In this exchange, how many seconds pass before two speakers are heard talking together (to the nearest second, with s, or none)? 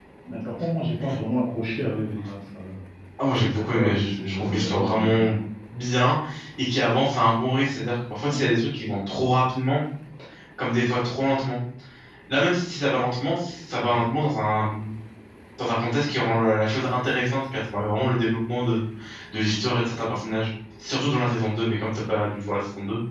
4 s